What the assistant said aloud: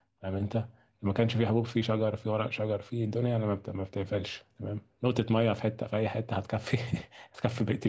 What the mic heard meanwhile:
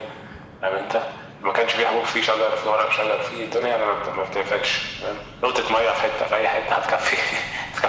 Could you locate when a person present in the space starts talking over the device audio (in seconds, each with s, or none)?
none